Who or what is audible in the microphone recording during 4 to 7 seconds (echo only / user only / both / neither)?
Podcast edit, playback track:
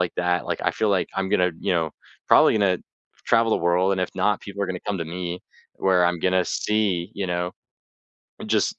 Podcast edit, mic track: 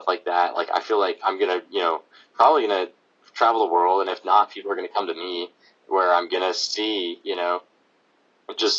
echo only